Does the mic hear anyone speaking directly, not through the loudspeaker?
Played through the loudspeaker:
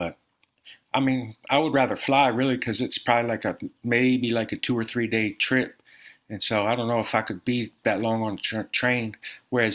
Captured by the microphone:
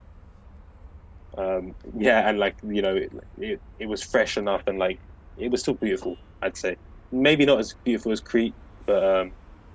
Yes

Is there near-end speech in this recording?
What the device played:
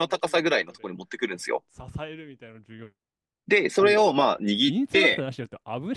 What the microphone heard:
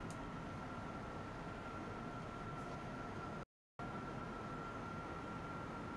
No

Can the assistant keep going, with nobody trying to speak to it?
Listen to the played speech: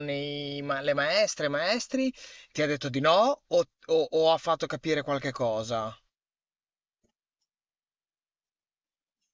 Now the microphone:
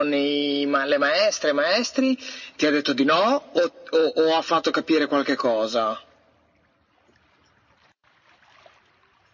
Yes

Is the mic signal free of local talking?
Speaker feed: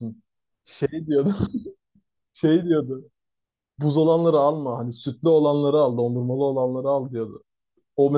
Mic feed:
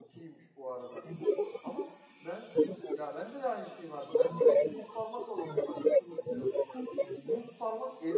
No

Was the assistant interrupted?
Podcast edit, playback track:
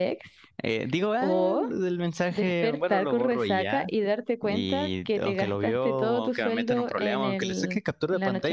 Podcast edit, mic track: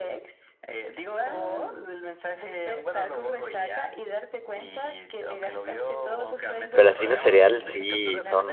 Yes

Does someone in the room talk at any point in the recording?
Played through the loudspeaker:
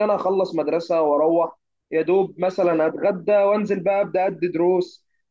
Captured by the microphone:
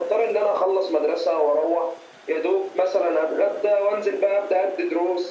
No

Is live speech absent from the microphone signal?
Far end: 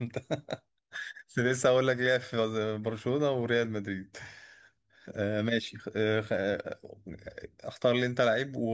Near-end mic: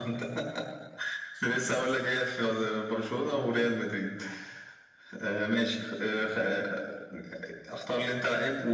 Yes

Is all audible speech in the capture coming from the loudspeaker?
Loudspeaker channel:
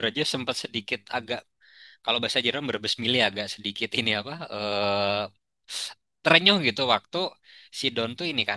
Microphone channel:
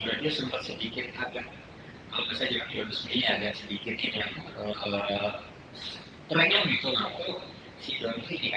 Yes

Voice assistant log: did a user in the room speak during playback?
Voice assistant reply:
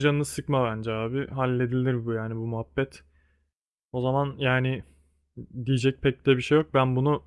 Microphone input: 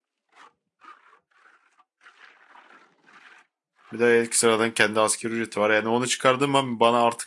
Yes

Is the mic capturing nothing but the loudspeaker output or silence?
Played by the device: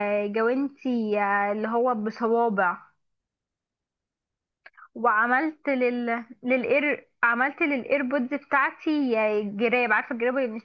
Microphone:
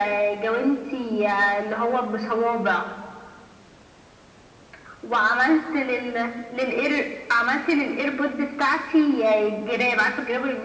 Yes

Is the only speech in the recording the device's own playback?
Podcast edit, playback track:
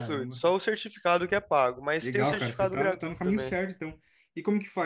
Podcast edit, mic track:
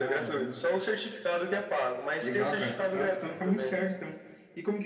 Yes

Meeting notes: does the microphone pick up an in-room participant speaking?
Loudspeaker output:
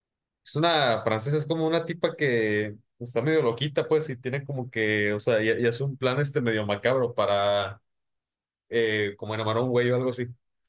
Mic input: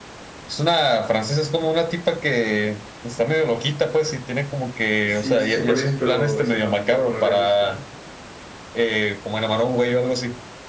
Yes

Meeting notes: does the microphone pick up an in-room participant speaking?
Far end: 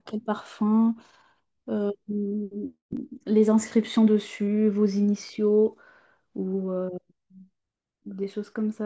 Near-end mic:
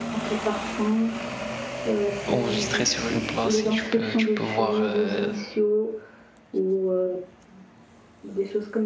Yes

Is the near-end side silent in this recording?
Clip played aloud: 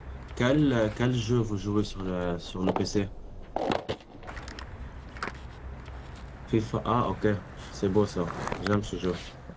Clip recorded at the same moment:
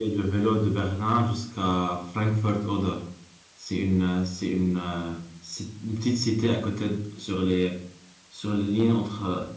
No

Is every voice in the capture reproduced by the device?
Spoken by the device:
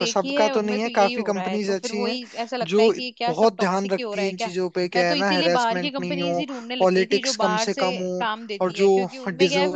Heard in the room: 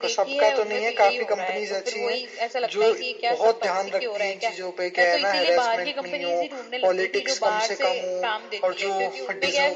Yes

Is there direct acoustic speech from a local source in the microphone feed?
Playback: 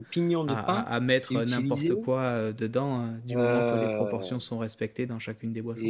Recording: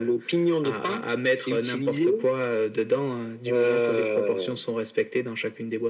No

